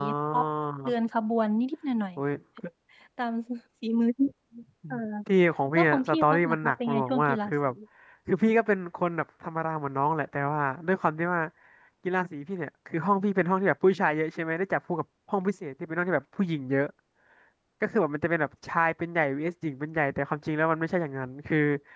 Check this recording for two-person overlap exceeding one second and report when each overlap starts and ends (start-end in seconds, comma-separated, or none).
5.7-7.5